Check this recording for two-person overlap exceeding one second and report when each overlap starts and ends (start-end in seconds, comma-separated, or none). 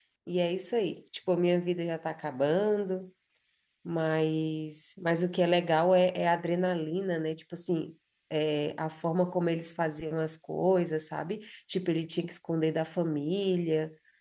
none